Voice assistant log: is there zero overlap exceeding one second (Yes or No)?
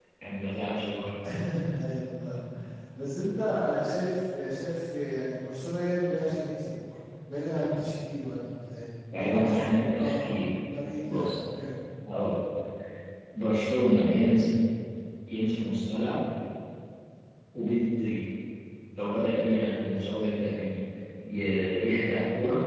No